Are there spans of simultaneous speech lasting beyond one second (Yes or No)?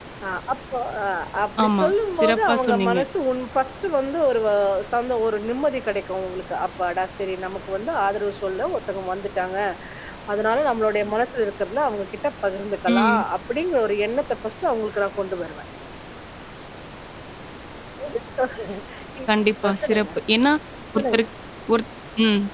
Yes